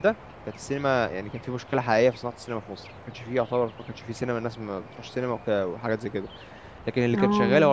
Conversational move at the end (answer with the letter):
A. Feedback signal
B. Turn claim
A